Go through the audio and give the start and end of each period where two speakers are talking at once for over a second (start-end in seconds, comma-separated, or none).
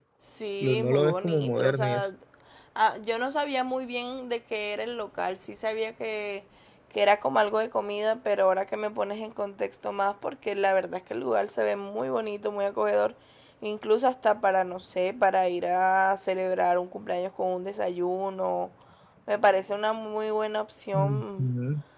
0.6-2.0